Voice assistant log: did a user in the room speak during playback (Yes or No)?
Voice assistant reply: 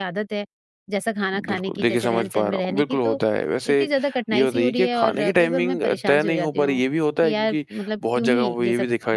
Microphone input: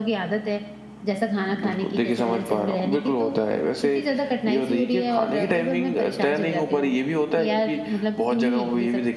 No